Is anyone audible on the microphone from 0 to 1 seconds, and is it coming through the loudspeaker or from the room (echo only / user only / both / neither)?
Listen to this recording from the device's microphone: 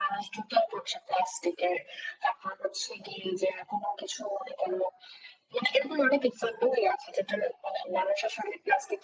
echo only